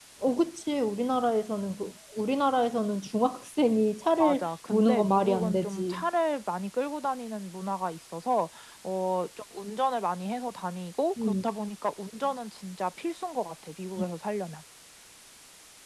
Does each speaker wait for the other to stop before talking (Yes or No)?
No